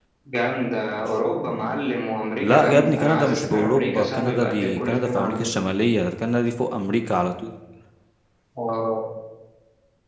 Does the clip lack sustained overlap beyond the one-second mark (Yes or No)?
No